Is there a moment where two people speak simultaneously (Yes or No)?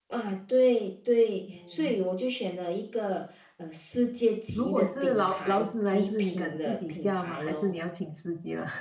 Yes